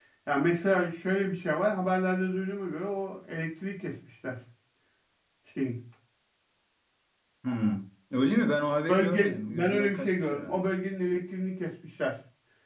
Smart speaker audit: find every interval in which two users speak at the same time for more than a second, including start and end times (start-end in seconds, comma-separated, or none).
8.9-10.6